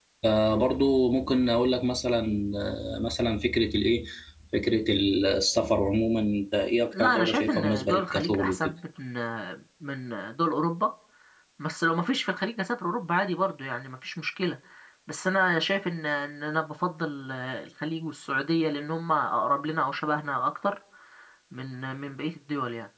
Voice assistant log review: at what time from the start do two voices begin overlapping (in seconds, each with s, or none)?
6.9 s